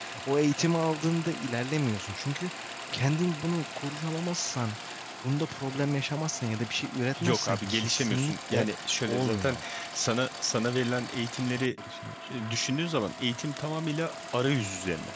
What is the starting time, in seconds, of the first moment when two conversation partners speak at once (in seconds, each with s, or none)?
7.2 s